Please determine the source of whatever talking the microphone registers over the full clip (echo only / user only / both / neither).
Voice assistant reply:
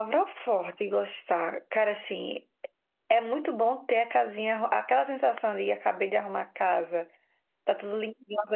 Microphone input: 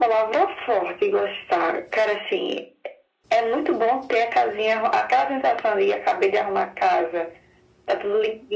echo only